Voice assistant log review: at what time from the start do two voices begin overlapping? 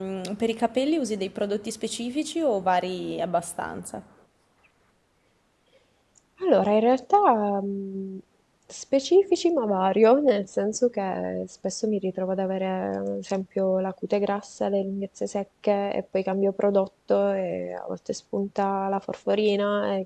none

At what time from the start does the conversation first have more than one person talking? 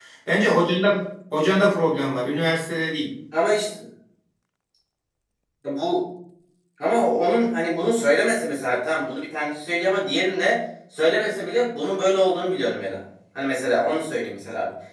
none

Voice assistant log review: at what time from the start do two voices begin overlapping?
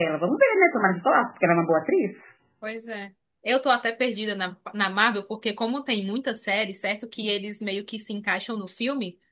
none

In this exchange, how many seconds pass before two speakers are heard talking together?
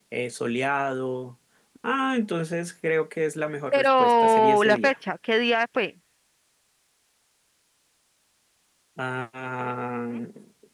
3.7 s

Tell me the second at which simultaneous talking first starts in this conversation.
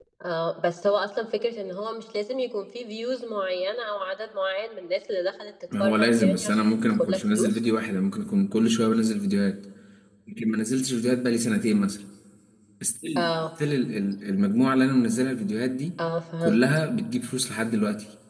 5.8 s

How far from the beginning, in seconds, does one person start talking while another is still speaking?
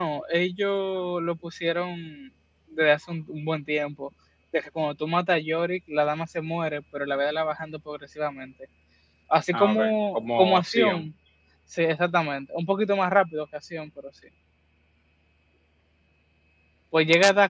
9.5 s

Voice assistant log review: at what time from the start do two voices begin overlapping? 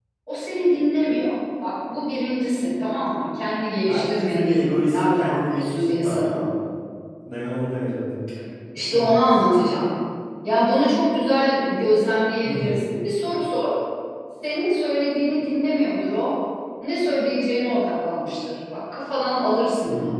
3.9 s

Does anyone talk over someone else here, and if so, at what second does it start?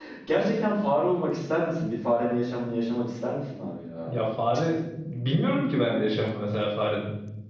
none

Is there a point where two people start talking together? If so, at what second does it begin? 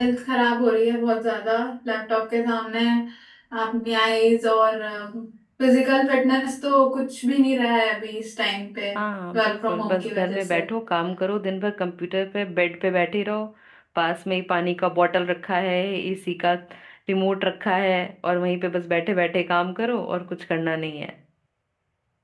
9.4 s

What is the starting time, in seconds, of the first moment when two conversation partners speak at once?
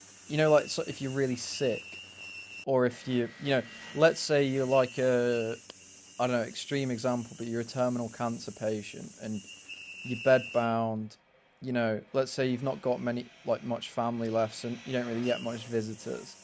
none

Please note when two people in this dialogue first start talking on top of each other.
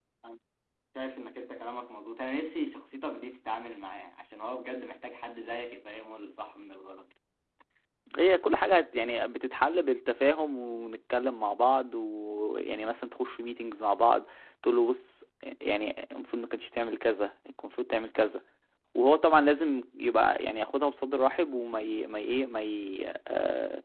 none

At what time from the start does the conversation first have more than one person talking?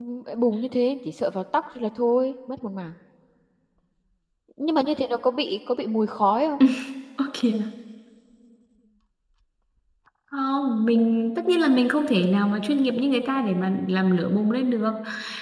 none

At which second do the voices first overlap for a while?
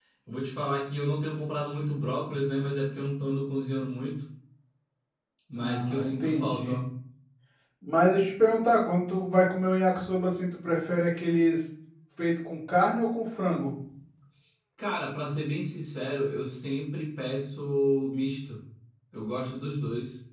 5.6 s

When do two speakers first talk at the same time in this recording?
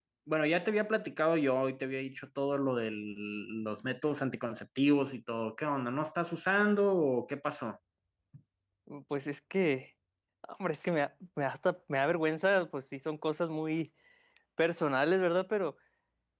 none

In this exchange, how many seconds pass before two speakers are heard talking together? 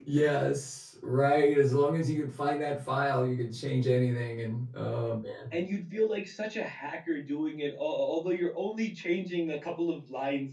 none

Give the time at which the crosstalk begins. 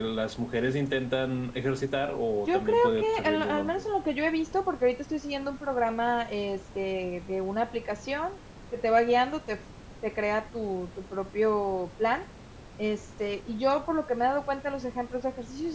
2.5 s

